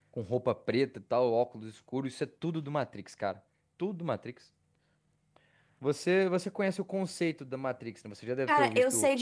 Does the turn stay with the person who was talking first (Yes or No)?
No